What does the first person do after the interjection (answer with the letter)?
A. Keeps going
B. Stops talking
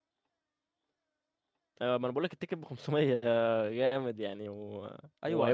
B